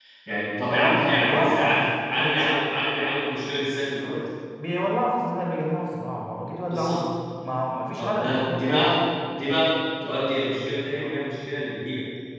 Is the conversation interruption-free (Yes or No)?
No